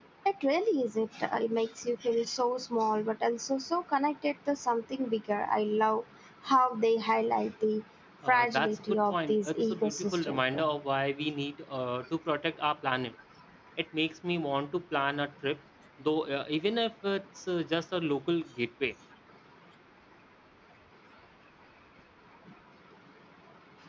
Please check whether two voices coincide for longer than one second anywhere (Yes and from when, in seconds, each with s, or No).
Yes, from 8.2 s